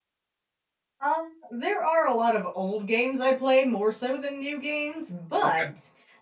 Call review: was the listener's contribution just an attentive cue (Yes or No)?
Yes